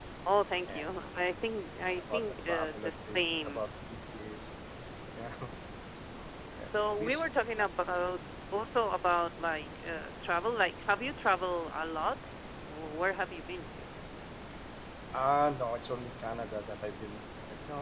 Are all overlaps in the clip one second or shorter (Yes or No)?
No